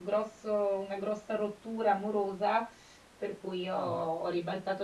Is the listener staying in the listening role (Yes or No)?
Yes